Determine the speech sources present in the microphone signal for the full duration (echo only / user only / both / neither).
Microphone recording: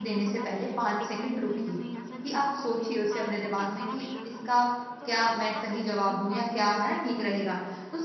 both